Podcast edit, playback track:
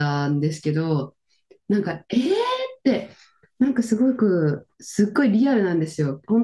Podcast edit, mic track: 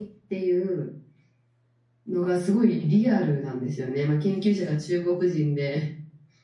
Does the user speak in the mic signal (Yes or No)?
Yes